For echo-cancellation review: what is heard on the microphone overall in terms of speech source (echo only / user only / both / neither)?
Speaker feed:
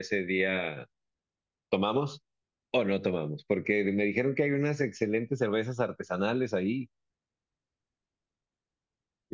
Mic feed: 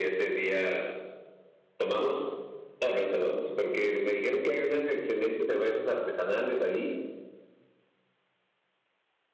echo only